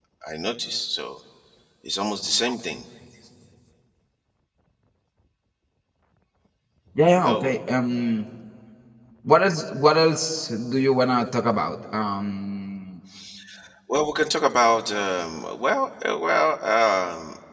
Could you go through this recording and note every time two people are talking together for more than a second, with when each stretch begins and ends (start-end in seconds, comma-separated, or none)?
none